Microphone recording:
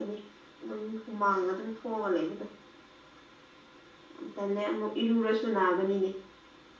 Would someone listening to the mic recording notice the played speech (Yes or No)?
Yes